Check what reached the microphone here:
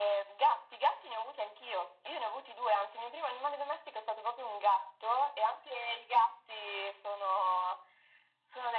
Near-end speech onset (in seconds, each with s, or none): none